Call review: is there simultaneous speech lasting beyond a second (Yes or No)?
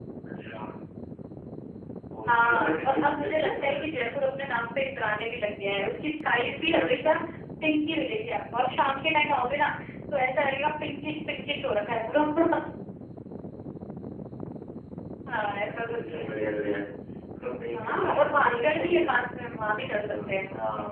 Yes